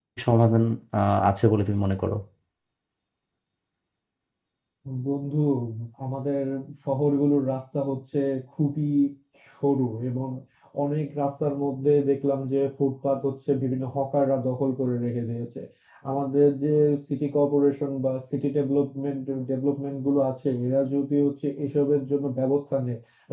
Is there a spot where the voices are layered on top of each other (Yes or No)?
No